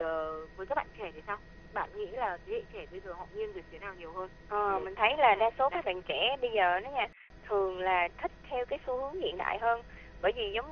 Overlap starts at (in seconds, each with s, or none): 4.7 s